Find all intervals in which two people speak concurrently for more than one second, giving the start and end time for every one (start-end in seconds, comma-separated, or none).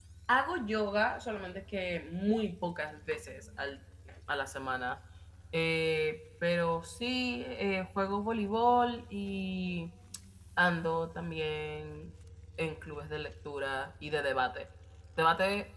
none